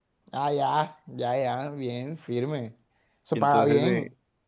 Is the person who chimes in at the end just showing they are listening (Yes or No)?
No